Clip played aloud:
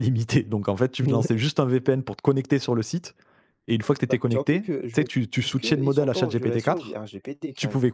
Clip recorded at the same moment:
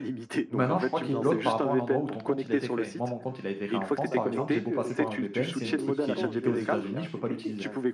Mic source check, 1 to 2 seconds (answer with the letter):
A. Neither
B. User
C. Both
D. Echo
C